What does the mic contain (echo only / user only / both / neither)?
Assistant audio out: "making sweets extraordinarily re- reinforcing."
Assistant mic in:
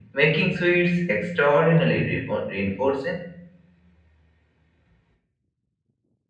echo only